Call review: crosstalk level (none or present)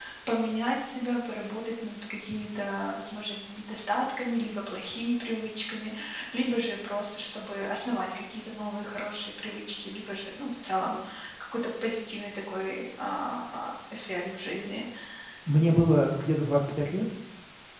none